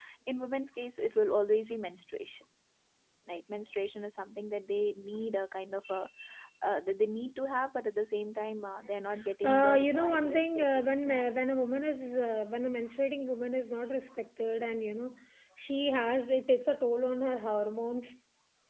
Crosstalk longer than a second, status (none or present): present